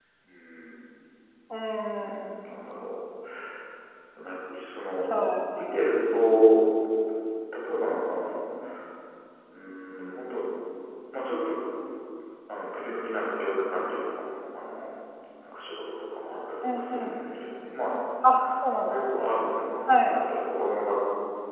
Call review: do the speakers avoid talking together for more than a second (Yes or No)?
Yes